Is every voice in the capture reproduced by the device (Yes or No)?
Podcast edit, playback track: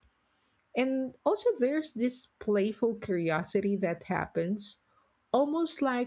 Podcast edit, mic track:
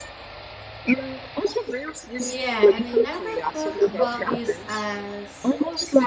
No